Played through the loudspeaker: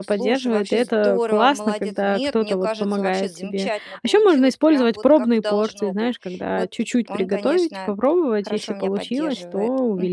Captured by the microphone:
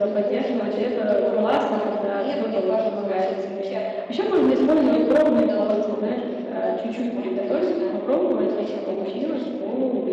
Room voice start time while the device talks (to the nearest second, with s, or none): none